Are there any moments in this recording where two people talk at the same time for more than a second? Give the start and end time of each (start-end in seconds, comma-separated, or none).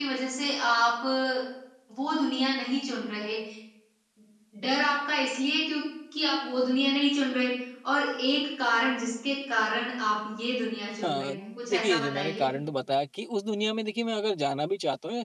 11.0-12.5